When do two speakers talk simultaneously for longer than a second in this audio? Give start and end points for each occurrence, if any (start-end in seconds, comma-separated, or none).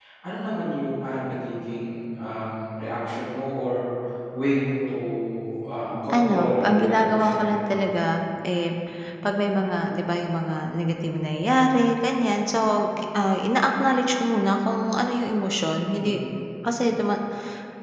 6.1-7.8